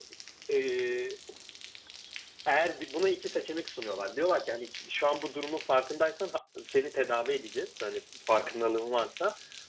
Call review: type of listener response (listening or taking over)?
listening